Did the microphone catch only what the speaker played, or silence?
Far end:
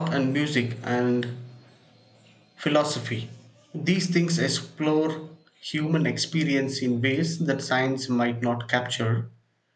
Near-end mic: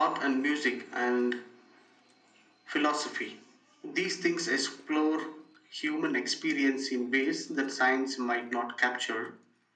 Yes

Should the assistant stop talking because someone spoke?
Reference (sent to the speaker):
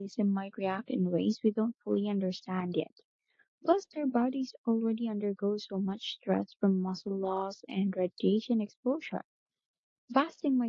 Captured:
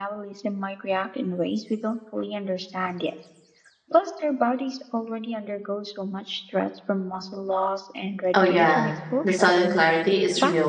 Yes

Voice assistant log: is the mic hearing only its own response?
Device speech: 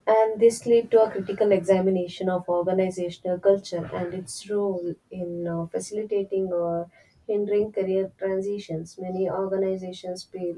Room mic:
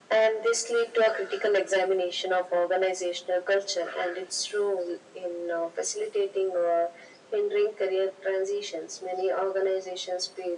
Yes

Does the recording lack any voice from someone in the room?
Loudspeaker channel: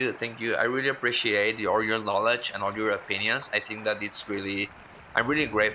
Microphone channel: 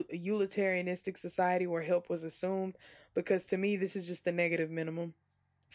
No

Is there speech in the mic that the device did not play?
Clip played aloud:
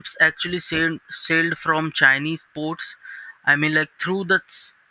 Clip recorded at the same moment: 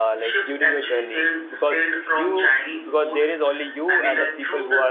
Yes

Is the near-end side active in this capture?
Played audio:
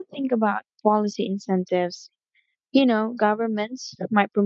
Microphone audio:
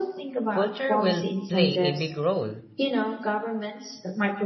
Yes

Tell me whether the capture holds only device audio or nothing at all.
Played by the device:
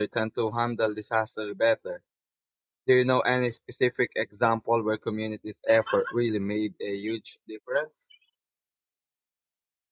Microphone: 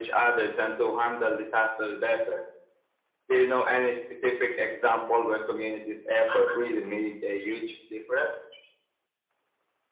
Yes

